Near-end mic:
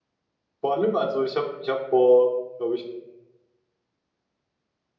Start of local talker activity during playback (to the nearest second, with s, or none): 1 s